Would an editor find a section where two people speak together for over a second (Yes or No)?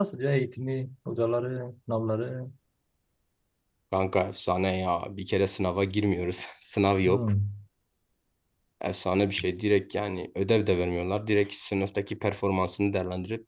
No